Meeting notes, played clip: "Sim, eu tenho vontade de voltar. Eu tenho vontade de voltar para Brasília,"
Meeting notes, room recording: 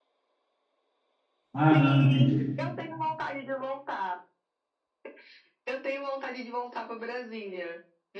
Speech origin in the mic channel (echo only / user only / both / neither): both